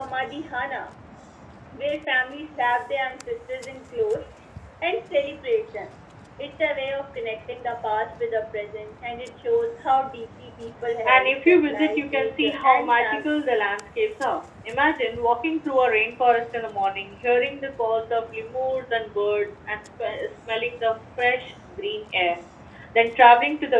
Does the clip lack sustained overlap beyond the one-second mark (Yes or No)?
No